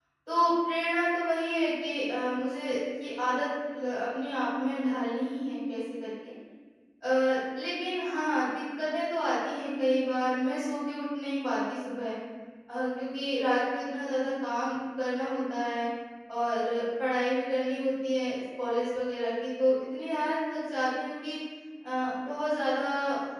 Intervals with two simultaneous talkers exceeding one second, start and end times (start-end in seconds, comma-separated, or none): none